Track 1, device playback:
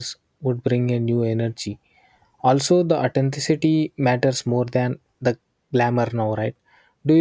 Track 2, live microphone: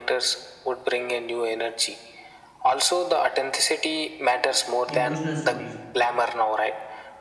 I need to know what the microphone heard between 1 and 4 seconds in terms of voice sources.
echo only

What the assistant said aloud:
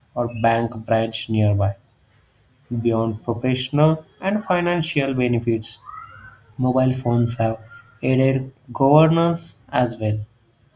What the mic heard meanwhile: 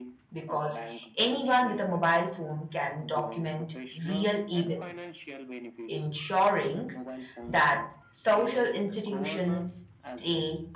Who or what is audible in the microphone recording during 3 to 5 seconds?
both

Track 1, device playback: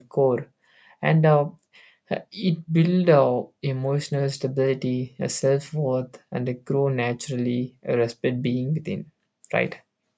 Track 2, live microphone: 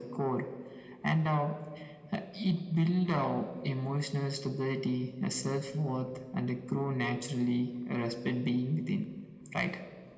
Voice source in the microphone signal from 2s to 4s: echo only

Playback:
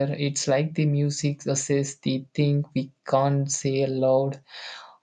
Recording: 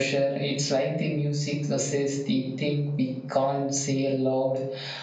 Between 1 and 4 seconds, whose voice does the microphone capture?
echo only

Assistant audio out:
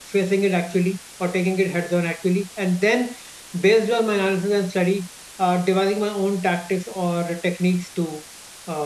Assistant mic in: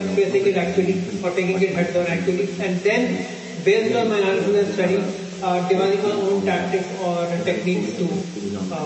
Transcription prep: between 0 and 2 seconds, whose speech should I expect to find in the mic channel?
both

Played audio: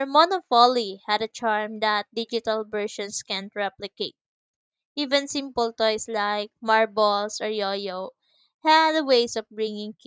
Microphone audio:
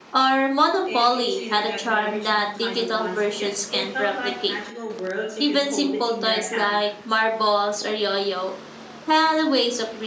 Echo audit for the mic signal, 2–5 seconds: both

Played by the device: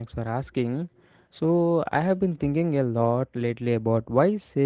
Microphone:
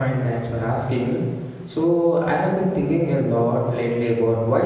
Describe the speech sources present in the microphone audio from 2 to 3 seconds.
echo only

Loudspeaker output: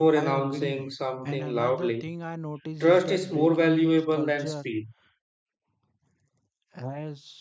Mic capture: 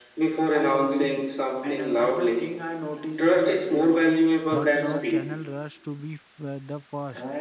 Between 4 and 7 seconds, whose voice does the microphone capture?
both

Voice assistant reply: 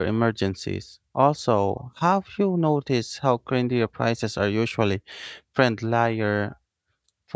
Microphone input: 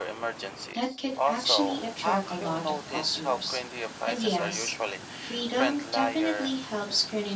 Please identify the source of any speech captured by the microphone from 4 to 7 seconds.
both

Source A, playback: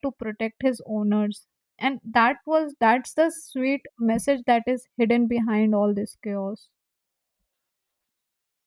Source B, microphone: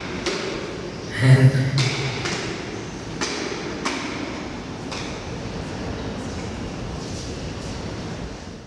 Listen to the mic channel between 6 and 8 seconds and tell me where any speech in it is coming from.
neither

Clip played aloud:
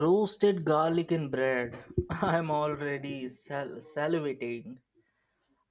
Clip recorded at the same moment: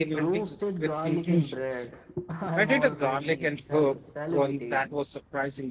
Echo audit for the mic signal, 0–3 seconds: both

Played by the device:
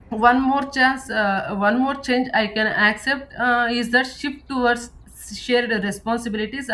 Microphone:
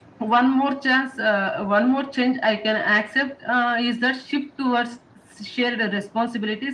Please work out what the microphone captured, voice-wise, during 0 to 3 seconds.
echo only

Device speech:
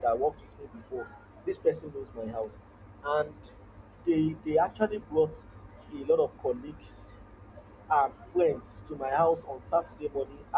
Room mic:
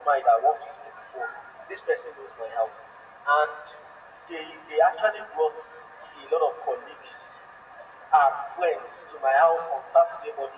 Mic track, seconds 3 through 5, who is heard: echo only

